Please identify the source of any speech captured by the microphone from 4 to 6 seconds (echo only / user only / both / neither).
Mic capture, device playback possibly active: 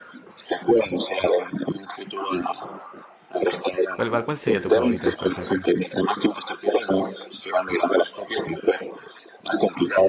both